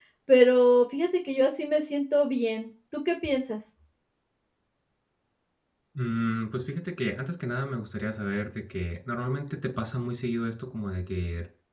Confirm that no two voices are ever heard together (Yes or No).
Yes